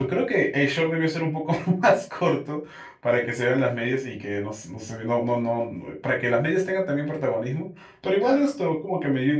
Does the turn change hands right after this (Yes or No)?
No